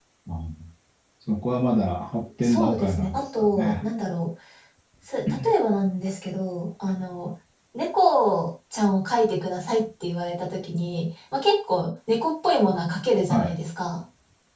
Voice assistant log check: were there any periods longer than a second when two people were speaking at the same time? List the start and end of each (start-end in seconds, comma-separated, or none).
2.4-3.7